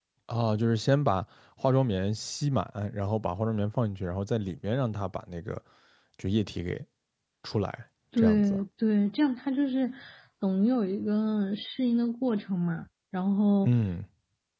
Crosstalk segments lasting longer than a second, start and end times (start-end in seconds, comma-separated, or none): none